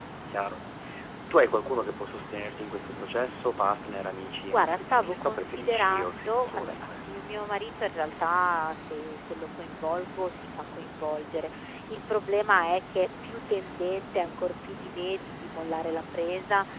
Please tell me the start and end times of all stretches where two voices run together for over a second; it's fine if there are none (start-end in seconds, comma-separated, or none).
4.5-7.2